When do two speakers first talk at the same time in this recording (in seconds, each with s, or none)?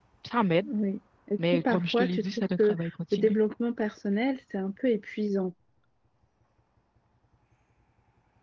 1.5 s